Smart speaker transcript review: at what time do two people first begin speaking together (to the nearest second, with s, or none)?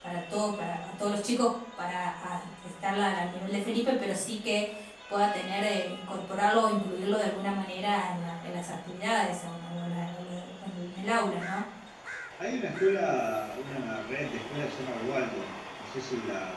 none